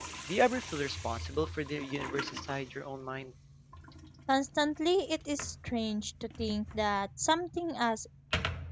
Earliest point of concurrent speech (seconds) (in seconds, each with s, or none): none